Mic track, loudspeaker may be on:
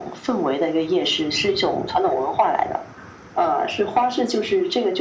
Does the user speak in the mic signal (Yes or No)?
No